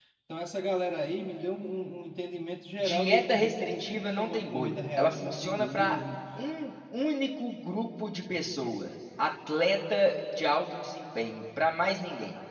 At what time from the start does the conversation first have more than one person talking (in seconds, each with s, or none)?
2.8 s